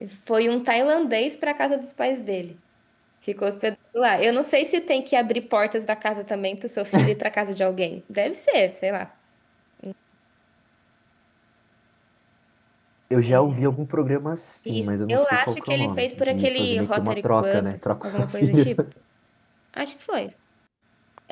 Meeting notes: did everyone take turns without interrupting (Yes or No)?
No